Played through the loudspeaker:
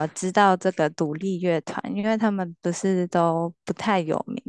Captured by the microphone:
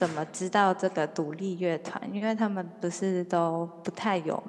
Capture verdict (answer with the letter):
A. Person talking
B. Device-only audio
B